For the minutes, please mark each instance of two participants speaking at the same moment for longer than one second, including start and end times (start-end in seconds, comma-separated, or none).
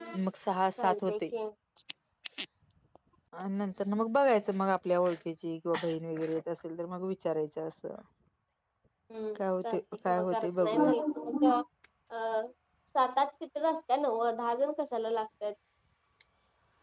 9.4-10.9